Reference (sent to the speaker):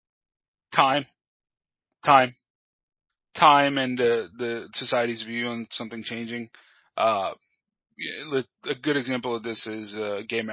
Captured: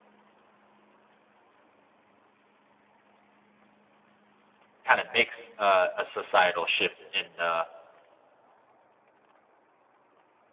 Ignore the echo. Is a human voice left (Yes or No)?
Yes